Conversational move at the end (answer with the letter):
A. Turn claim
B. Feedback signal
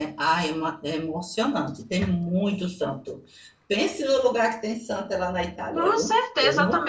A